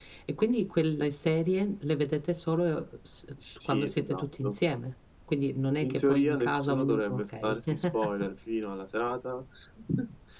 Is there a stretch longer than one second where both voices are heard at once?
Yes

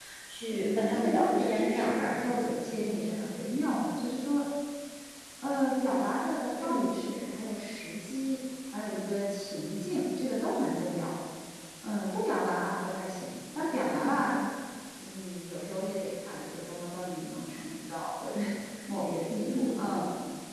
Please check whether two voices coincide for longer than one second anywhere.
Yes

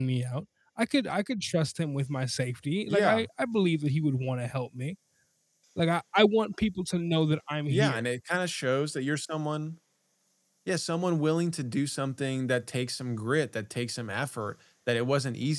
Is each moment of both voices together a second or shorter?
Yes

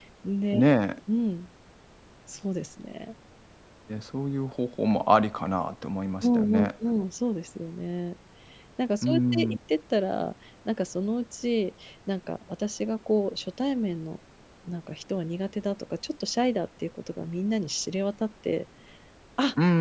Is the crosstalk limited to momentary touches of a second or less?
Yes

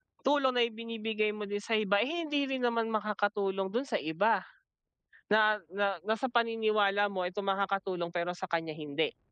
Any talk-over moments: No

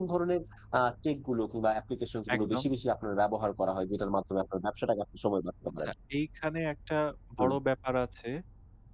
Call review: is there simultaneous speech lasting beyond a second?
No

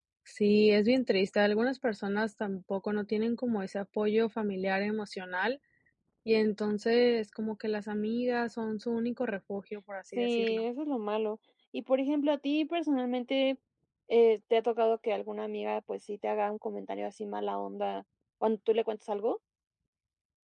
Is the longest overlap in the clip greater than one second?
No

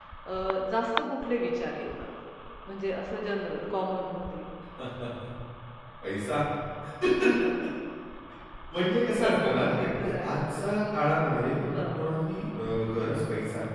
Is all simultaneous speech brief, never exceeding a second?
No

